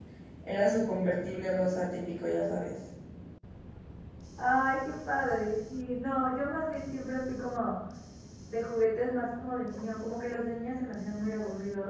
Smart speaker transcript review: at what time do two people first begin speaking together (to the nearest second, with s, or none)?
none